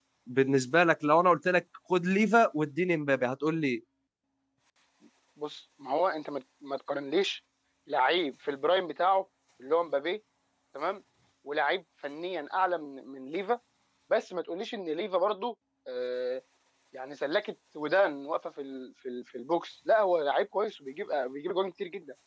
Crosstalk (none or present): none